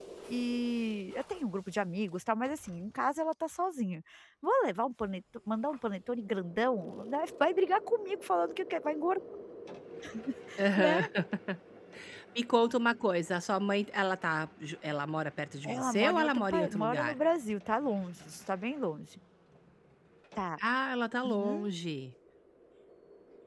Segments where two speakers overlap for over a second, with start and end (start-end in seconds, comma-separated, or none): 15.7-17.2